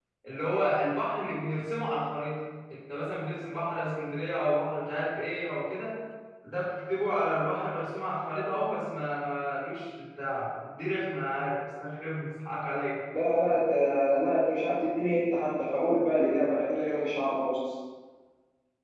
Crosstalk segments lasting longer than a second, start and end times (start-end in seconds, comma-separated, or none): none